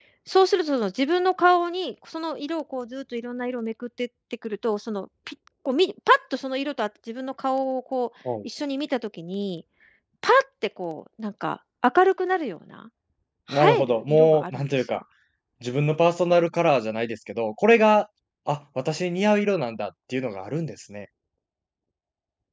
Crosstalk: present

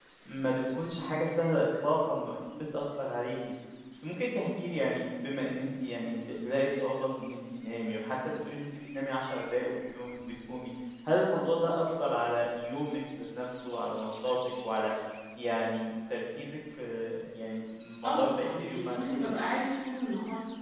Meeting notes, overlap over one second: present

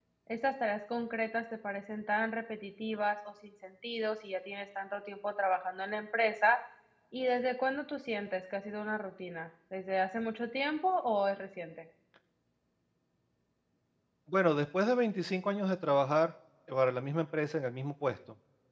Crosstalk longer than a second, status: none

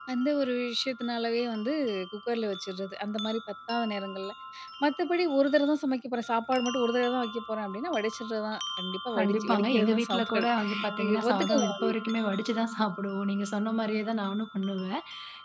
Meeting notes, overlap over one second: present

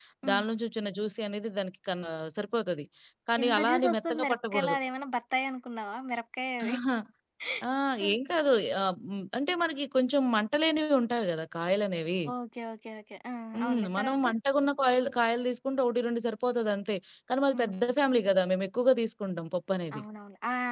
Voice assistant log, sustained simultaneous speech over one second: present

